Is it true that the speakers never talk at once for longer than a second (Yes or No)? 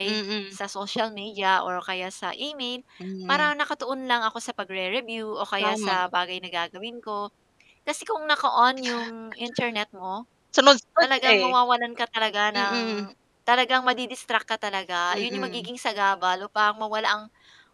Yes